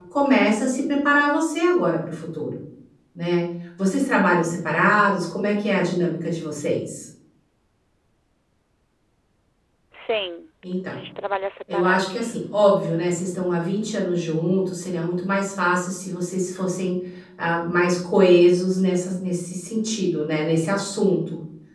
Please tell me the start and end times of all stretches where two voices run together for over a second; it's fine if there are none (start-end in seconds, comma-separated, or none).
none